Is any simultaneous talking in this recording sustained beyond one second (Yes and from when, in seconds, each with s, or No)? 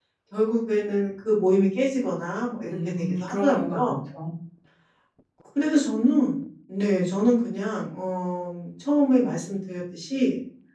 Yes, from 2.6 s